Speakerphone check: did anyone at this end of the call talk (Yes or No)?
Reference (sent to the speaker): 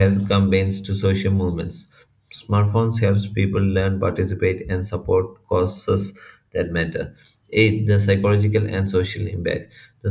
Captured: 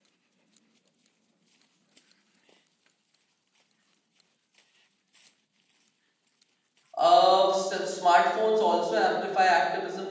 Yes